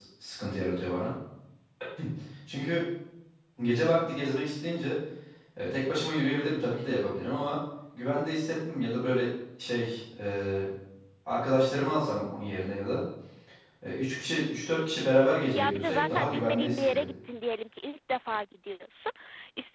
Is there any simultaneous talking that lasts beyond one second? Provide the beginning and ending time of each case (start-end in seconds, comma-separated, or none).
15.6-17.1